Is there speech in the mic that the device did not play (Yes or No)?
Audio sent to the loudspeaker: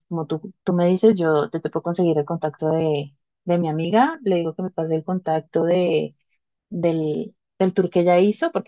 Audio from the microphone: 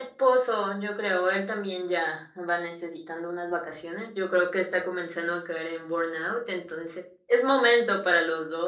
Yes